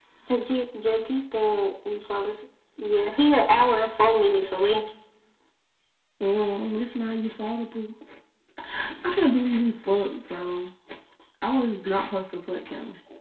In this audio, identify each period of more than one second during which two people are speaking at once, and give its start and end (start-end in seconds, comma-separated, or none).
none